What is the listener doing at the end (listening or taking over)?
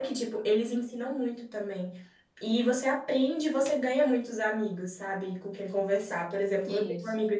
listening